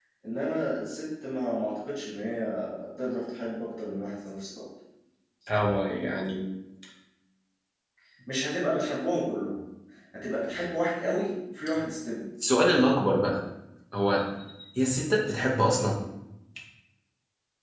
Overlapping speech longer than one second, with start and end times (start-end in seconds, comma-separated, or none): none